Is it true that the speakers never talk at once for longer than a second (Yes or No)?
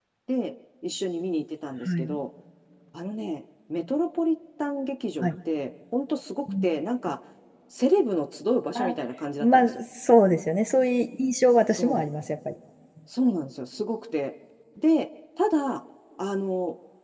Yes